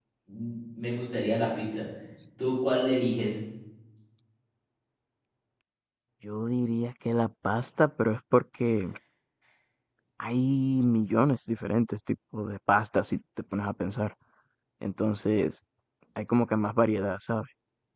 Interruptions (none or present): none